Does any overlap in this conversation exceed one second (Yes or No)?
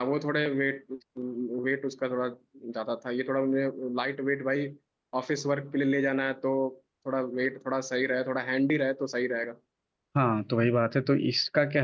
No